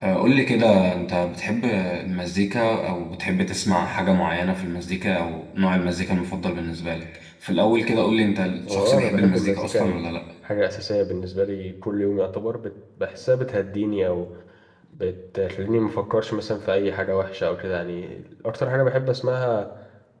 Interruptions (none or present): present